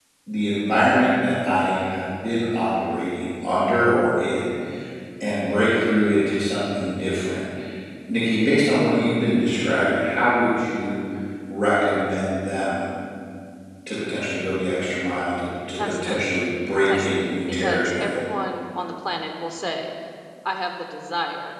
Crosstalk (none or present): present